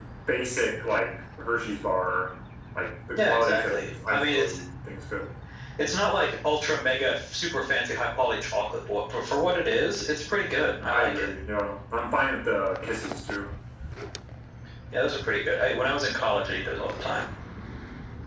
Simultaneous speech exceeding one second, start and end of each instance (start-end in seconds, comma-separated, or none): 3.2-4.5